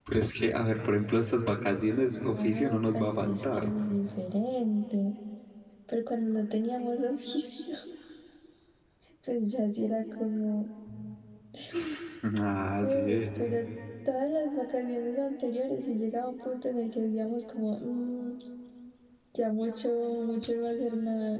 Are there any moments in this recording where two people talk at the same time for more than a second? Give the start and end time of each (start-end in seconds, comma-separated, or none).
2.3-3.7